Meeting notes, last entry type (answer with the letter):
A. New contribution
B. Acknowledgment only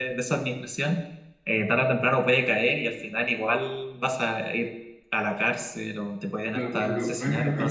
A